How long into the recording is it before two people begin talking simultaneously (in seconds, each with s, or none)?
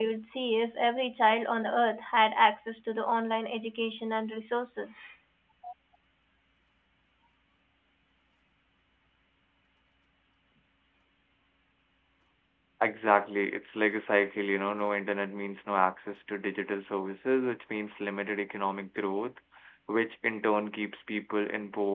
none